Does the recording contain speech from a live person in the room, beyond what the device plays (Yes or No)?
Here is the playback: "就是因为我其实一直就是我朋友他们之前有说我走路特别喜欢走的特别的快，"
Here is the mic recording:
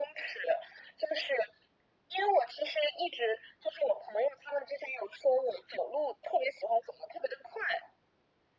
No